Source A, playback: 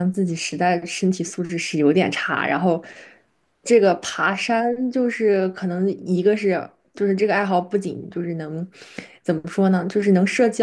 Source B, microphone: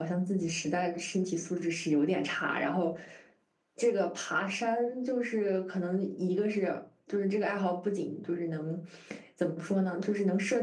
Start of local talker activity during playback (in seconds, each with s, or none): none